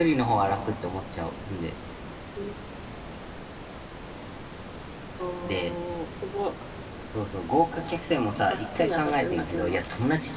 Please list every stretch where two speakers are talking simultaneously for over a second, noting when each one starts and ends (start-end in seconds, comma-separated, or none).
8.5-9.8